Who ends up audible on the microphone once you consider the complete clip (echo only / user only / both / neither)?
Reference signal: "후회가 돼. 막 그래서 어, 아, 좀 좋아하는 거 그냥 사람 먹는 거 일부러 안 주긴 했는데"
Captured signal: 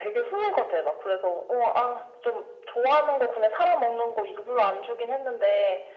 echo only